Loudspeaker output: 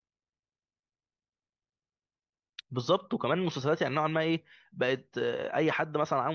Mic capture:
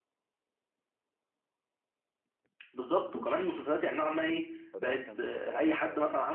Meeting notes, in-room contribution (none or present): present